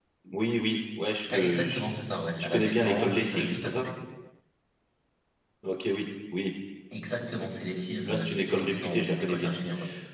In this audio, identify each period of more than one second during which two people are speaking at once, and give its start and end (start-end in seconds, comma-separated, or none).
2.4-3.9, 8.1-9.5